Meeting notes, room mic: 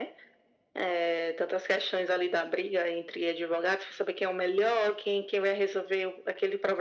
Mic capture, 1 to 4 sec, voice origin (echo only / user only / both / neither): echo only